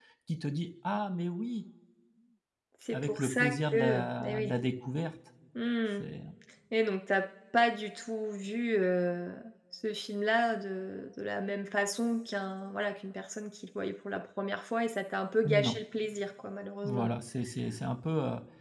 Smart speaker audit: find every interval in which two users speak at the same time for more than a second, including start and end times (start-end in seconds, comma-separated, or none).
2.9-4.5